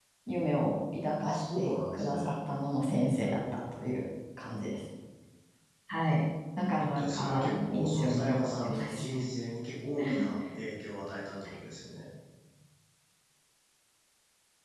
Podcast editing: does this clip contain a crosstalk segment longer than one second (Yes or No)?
Yes